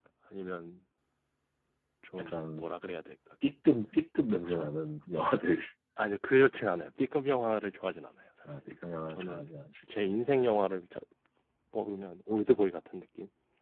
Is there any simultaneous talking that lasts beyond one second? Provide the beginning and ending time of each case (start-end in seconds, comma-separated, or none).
none